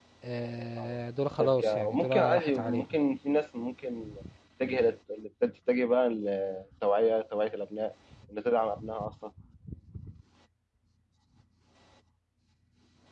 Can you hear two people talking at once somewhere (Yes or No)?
Yes